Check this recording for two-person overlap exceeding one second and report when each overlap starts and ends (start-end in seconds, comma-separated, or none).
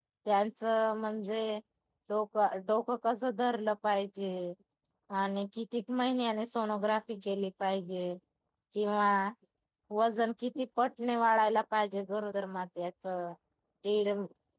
none